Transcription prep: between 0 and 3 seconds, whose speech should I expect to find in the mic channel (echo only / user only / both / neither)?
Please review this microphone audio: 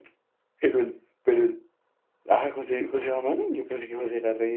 echo only